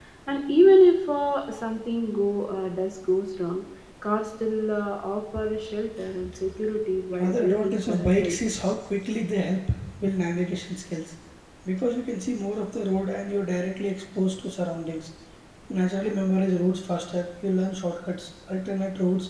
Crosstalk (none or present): present